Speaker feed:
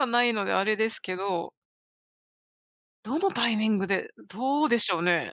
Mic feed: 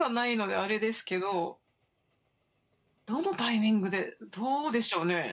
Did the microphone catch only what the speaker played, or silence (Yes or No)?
Yes